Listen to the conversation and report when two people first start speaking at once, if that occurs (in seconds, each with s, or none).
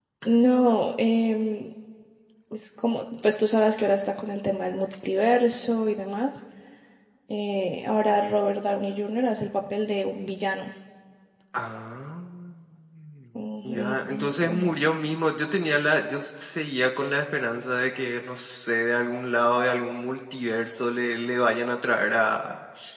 13.7 s